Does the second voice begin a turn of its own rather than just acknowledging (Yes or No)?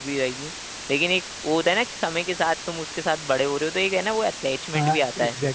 Yes